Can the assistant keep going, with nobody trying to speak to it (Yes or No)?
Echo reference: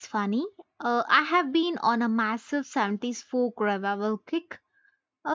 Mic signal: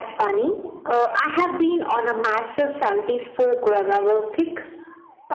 Yes